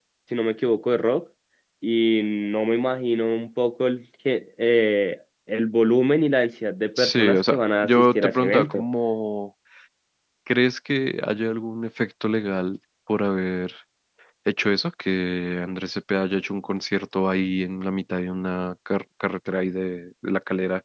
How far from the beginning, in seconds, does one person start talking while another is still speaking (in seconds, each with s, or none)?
7.0 s